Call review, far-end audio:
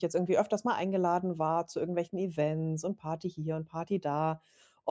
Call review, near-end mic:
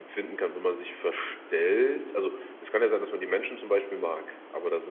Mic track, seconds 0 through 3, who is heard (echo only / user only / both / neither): user only